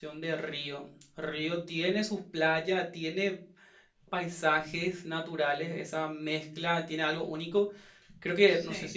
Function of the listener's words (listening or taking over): listening